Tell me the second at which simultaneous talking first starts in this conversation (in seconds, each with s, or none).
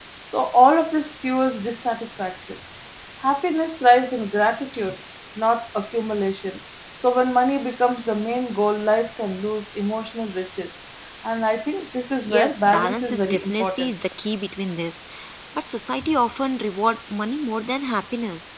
12.2 s